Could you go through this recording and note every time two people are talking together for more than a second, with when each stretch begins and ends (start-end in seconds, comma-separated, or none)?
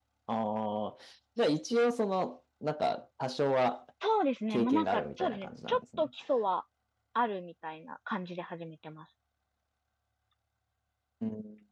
4.5-6.1